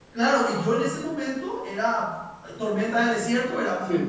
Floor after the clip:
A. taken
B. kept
B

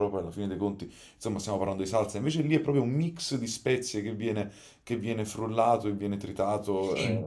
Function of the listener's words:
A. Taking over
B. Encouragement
B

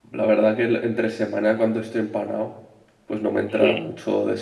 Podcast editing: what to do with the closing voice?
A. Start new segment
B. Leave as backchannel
B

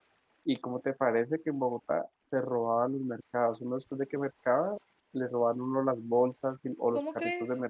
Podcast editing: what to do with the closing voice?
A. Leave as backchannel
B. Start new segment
A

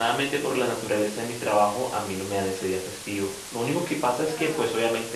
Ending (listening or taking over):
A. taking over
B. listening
B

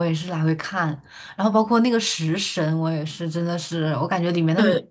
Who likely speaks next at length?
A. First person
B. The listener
A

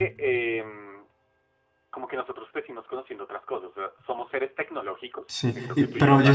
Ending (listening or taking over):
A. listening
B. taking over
B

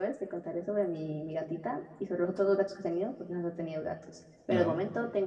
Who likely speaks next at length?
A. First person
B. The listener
A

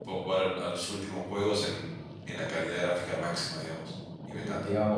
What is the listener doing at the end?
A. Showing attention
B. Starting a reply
B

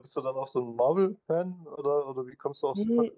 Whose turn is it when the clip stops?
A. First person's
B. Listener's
B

